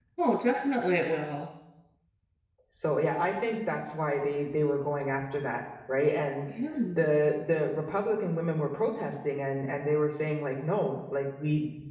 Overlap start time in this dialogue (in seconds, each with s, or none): none